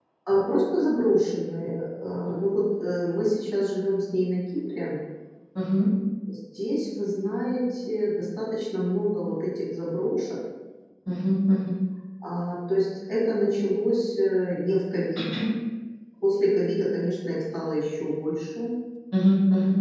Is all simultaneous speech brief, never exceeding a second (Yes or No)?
Yes